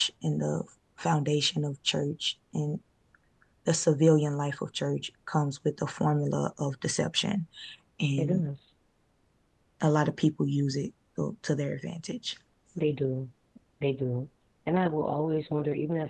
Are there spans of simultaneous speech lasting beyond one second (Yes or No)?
No